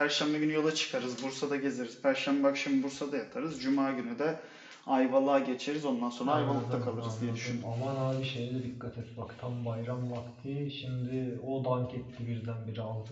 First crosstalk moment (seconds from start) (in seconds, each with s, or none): 6.2 s